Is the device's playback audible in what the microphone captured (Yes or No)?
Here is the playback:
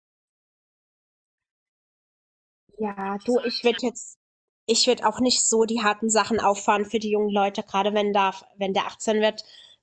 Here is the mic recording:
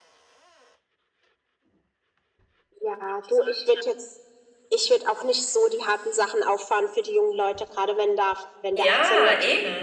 Yes